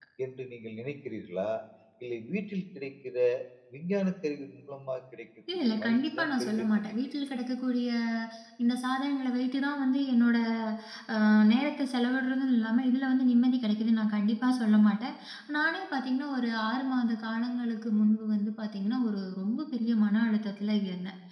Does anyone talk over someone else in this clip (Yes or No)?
Yes